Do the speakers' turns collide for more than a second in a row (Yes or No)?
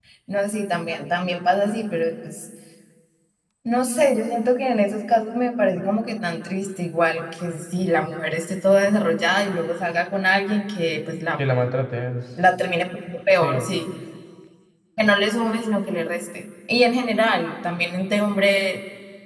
No